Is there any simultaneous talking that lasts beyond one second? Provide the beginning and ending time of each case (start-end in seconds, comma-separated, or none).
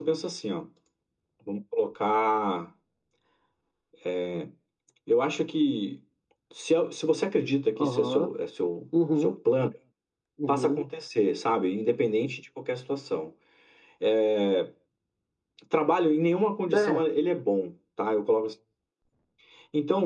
none